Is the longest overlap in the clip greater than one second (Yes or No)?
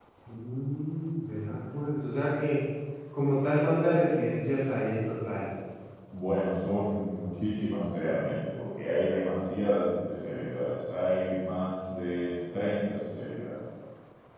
No